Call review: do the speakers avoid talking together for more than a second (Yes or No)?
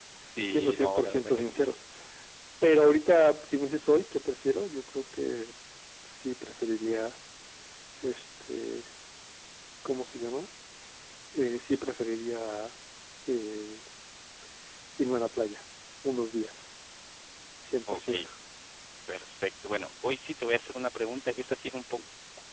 No